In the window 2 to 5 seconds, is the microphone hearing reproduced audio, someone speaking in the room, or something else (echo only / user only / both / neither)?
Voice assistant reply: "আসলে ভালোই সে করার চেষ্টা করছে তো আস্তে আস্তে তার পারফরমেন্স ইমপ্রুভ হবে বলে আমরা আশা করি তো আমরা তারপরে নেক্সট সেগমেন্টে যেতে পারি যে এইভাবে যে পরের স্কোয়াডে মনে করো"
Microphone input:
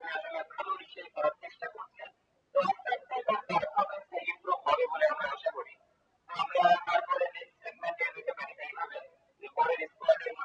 echo only